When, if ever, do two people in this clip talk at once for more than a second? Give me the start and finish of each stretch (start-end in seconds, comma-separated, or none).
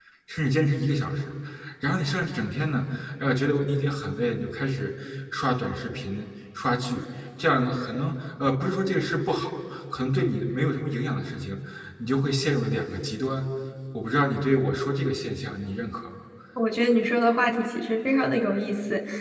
none